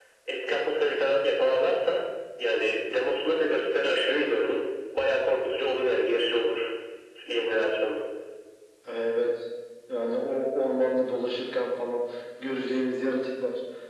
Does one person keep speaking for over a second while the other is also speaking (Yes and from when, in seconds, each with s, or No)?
No